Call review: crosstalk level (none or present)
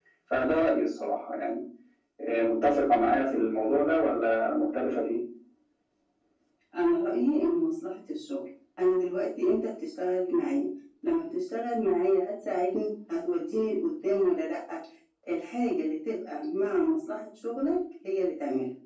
none